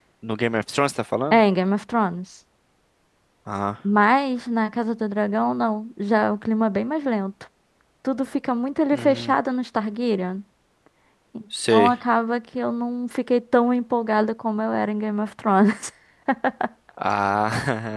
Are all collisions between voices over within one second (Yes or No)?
Yes